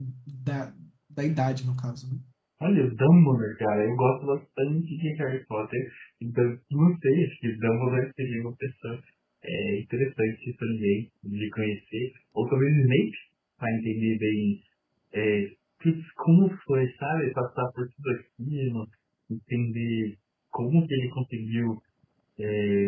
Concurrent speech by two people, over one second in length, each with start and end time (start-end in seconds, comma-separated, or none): none